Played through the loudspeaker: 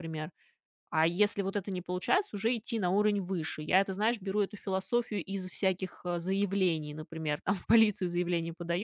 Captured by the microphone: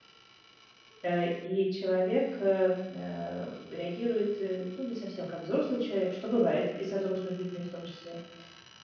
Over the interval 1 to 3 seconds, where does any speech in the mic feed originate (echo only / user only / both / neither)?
user only